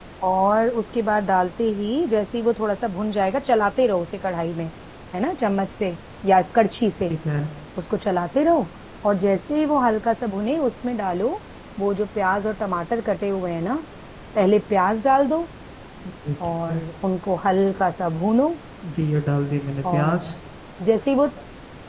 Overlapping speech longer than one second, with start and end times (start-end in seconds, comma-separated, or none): none